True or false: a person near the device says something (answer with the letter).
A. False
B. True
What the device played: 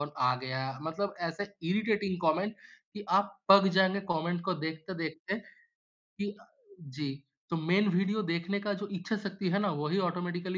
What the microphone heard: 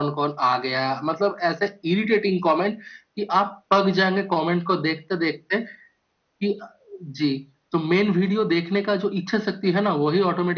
A